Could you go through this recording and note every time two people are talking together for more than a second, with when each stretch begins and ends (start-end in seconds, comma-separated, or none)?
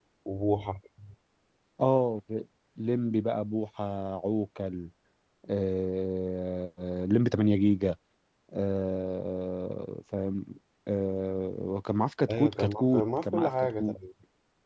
12.3-13.9